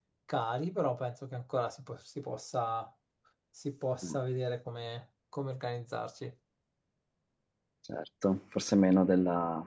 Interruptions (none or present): none